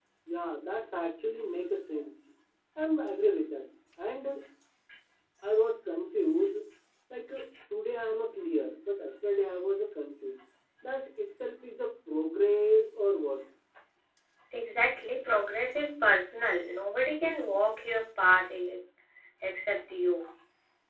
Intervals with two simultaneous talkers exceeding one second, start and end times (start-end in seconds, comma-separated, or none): none